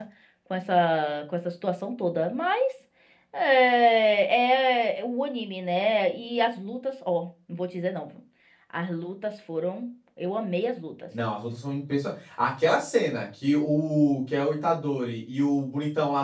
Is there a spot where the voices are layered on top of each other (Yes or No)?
No